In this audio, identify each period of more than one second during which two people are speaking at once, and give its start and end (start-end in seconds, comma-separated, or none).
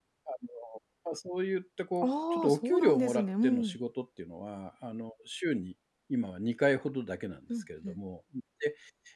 2.0-3.8